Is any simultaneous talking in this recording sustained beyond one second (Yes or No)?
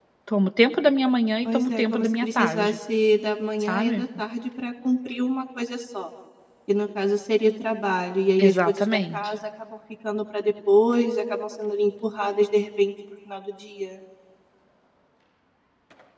Yes